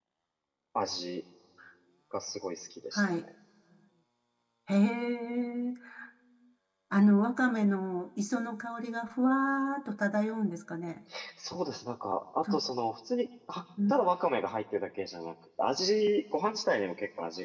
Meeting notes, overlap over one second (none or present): none